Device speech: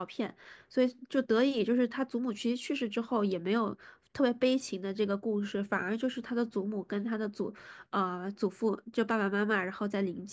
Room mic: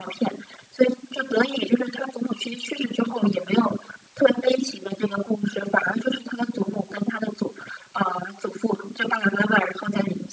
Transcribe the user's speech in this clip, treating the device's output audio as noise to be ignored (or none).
none